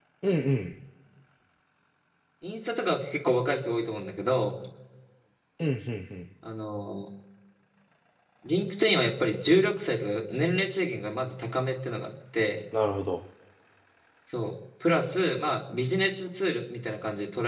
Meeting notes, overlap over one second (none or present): none